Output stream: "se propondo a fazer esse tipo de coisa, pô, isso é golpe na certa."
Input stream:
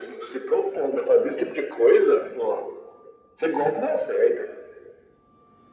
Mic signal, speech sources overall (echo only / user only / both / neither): echo only